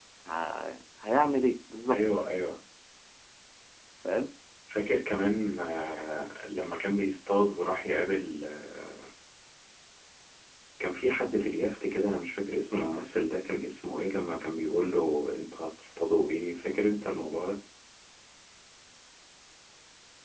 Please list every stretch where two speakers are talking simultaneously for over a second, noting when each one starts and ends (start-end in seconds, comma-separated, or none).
none